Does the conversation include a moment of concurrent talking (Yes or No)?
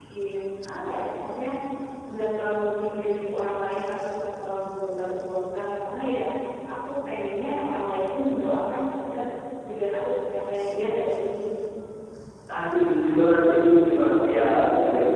No